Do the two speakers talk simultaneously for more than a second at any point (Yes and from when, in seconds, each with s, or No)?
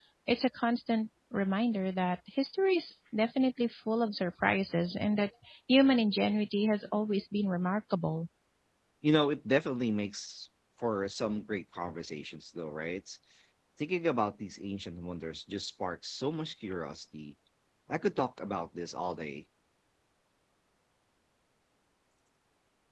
No